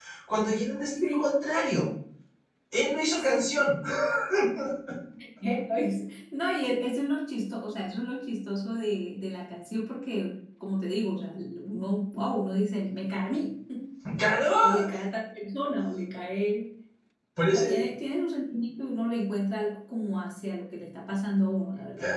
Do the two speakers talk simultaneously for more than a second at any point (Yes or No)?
No